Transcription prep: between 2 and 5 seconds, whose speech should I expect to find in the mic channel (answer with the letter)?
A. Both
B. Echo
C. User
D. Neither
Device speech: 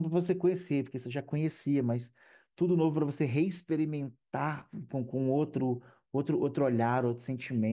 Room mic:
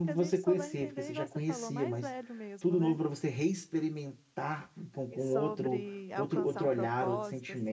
A